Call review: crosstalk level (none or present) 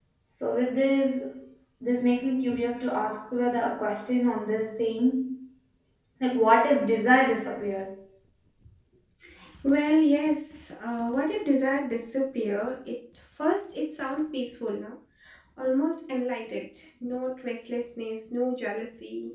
none